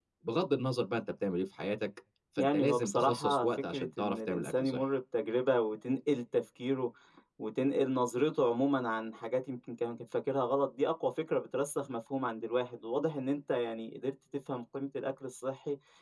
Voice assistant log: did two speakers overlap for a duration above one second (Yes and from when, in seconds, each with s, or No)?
Yes, from 2.4 s